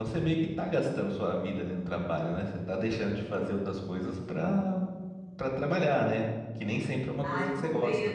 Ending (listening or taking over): taking over